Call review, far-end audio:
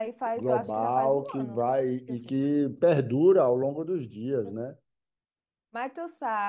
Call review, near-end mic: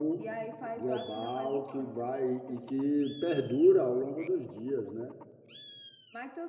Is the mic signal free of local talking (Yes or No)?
Yes